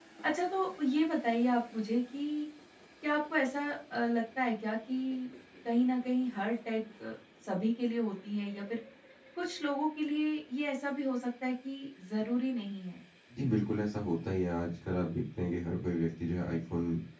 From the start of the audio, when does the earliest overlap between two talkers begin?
none

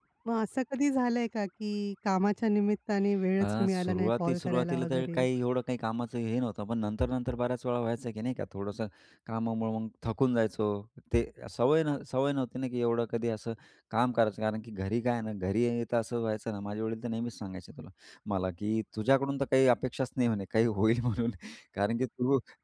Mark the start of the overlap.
3.4 s

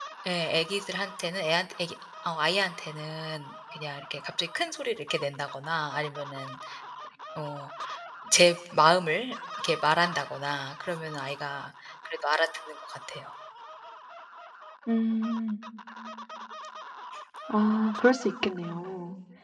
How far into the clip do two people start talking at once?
none

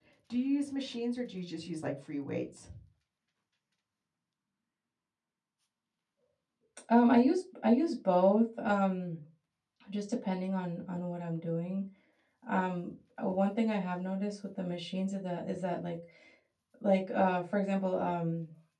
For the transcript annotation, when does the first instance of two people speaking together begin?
none

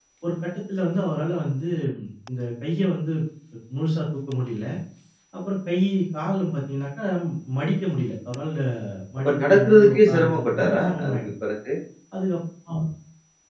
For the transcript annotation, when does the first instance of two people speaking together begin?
9.2 s

